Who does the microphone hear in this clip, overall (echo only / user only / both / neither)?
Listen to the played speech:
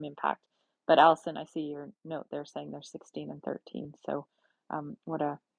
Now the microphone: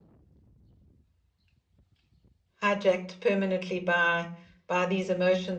user only